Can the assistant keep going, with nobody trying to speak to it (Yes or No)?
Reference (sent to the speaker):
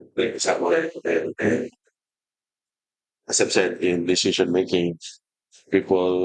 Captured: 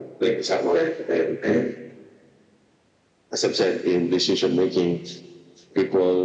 Yes